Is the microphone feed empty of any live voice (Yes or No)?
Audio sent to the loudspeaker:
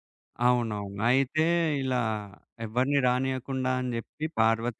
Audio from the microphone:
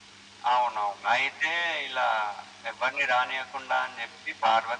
Yes